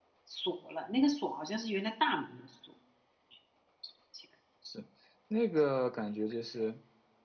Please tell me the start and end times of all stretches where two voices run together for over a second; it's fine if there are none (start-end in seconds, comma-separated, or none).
none